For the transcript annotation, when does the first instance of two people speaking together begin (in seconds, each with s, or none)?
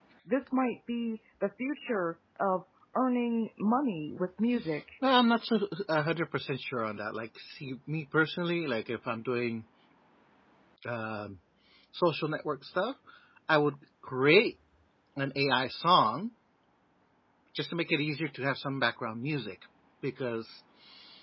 none